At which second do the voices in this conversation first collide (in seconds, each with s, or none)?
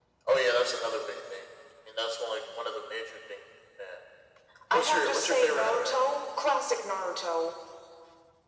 4.7 s